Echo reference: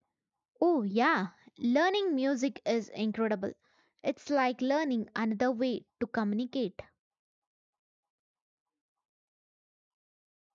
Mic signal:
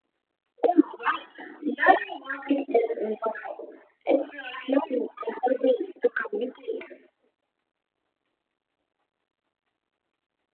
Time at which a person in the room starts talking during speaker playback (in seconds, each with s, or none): none